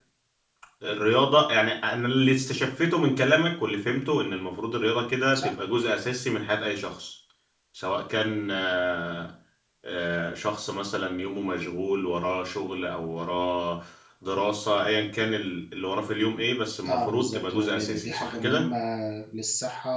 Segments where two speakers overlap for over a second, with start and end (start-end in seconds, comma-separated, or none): 16.9-18.7